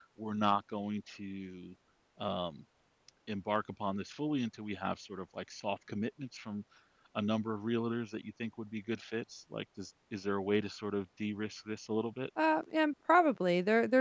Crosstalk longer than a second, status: none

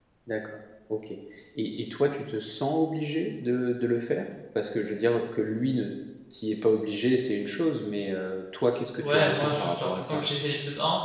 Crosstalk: present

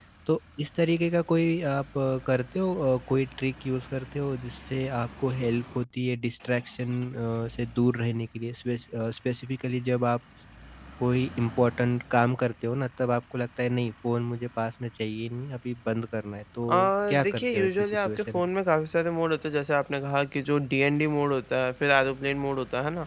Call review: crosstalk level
present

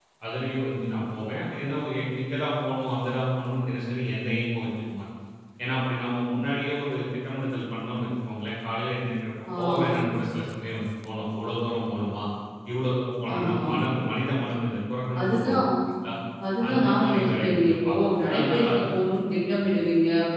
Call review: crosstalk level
present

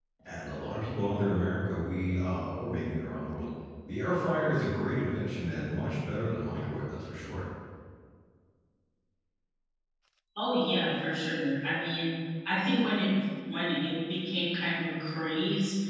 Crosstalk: none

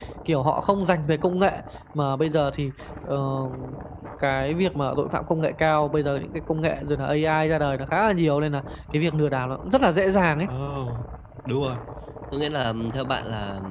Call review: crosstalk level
none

